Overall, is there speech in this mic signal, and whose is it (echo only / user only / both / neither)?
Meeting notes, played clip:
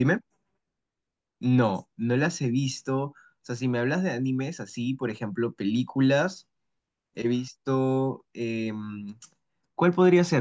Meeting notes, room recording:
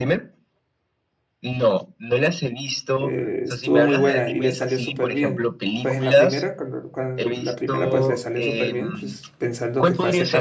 both